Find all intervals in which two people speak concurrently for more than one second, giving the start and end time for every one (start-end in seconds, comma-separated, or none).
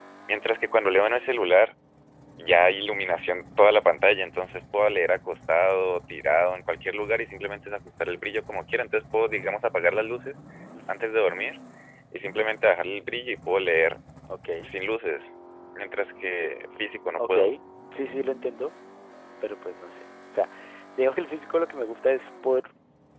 none